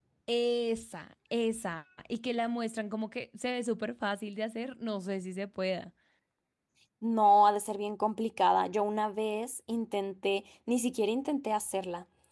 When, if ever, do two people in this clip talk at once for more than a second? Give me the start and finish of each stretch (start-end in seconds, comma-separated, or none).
none